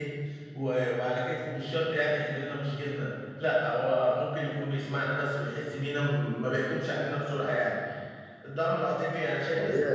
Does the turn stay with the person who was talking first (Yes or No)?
No